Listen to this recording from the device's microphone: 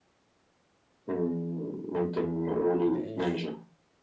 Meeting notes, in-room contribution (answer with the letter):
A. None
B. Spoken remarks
B